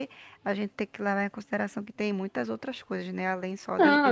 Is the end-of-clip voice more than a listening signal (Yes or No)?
Yes